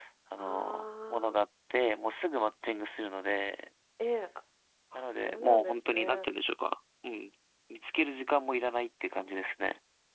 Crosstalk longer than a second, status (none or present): present